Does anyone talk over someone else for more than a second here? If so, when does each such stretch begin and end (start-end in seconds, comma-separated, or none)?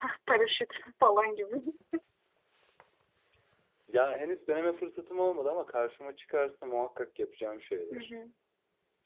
none